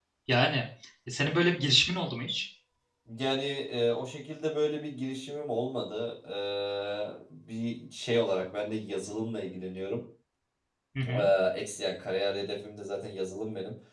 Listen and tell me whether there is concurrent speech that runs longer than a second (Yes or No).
No